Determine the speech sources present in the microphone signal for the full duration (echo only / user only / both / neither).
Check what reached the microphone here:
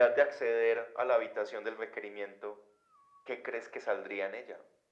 echo only